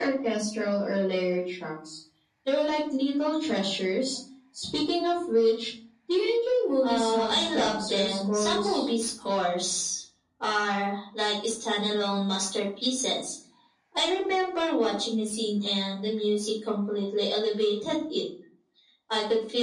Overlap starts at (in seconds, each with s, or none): 6.8 s